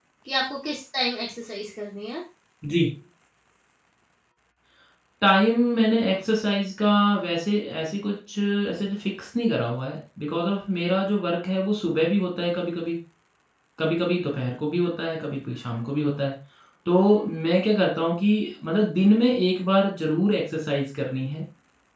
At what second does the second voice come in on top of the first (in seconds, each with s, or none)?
none